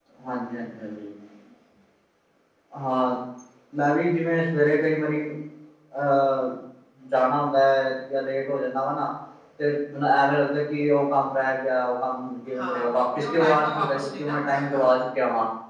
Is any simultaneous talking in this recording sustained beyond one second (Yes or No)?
Yes